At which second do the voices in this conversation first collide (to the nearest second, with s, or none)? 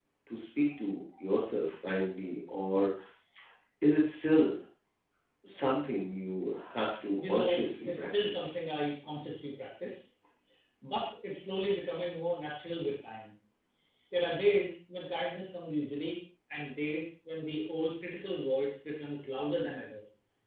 7 s